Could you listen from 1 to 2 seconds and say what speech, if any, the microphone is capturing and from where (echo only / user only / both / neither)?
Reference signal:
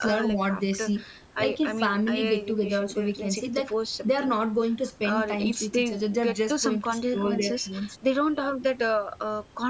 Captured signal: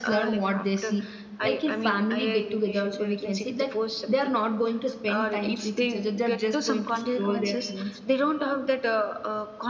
echo only